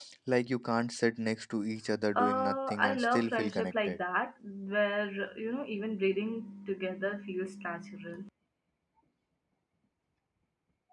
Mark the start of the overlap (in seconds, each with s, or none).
2.2 s